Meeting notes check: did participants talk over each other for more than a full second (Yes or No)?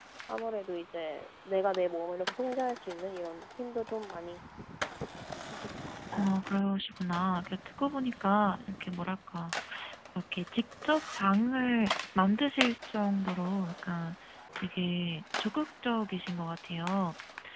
No